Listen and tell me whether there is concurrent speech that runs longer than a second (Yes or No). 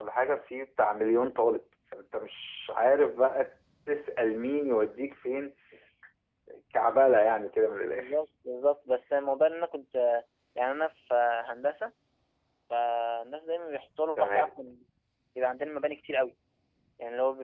No